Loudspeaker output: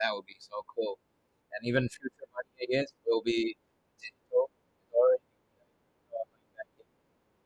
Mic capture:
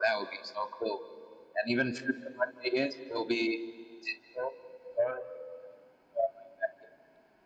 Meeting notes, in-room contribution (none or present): none